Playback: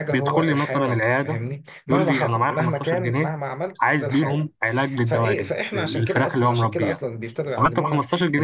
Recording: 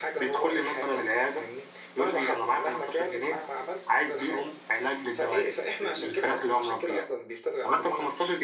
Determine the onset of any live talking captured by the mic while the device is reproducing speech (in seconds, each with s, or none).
none